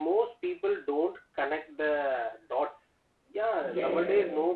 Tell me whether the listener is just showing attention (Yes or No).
Yes